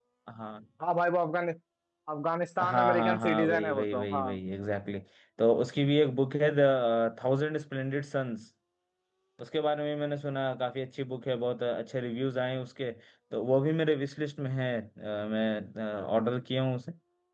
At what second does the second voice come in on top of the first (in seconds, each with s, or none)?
2.6 s